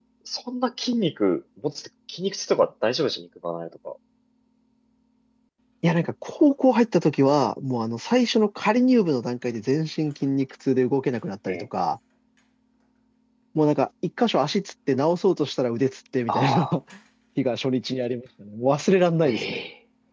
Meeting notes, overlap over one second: none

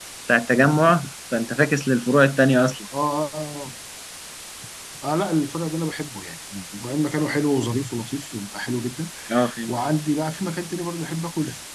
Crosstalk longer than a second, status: none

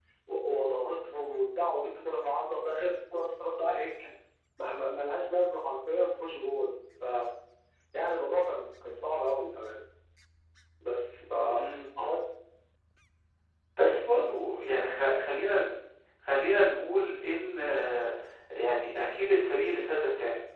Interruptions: none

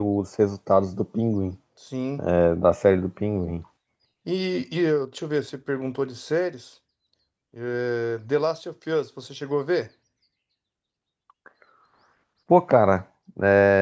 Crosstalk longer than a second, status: none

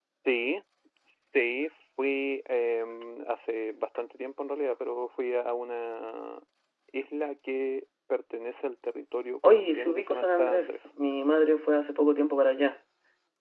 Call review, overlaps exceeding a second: present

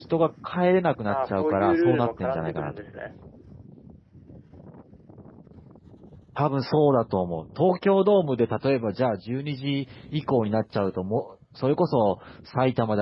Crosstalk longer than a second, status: present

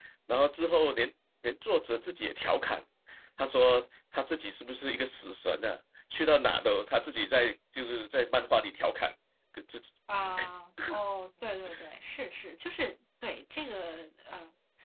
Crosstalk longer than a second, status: none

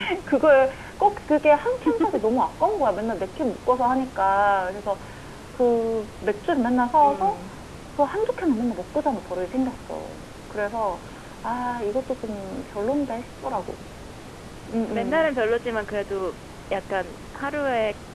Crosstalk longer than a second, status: none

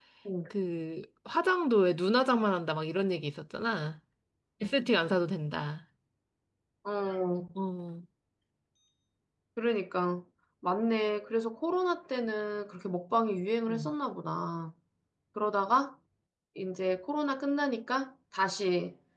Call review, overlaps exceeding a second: none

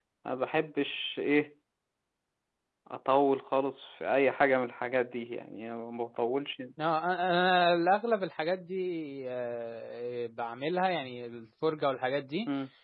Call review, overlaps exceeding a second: none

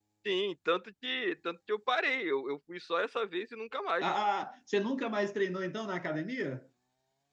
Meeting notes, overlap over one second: none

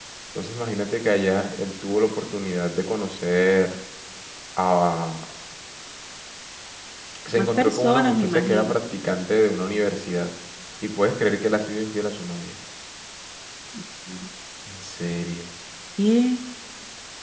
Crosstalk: present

